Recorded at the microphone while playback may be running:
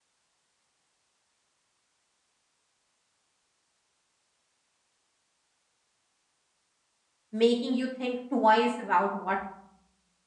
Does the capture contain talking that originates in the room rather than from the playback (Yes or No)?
Yes